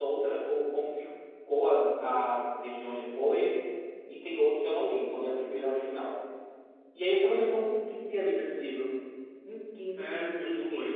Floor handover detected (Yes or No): Yes